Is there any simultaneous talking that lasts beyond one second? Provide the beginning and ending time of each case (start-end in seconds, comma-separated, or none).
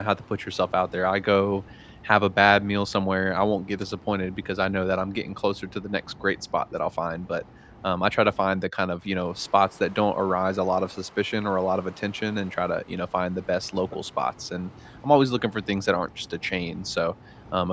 none